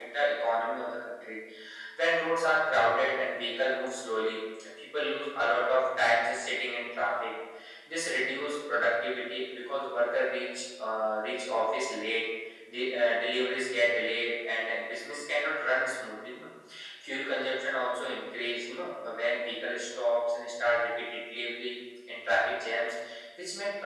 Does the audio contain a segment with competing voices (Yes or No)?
No